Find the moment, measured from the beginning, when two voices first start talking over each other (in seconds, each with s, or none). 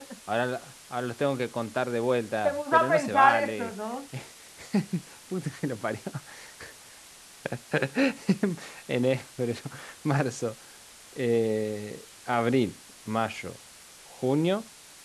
2.4 s